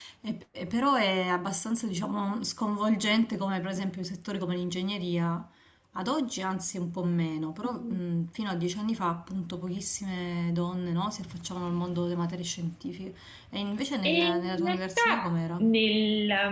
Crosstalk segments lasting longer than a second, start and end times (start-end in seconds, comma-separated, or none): 14.0-15.6